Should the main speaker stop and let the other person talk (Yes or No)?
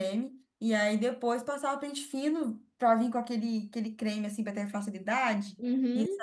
Yes